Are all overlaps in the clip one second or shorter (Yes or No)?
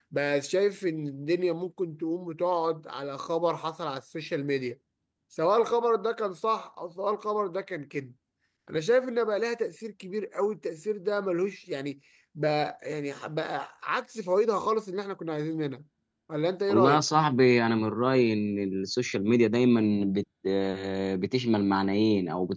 Yes